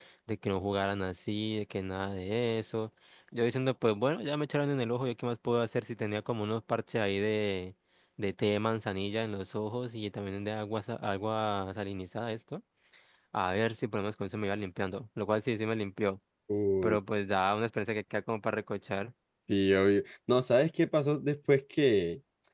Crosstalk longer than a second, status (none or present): none